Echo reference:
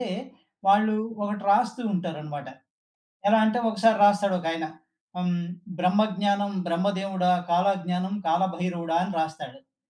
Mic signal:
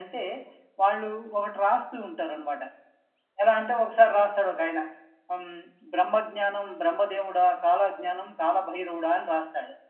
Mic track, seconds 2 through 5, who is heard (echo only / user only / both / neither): echo only